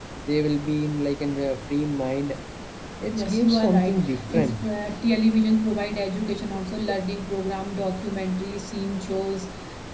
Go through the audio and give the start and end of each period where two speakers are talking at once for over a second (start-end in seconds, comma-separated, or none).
3.1-4.6